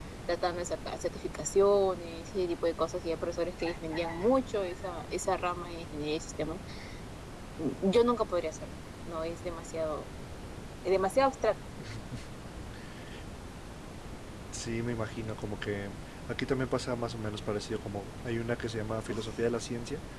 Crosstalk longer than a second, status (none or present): none